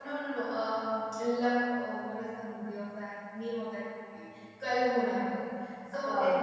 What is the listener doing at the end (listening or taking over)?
listening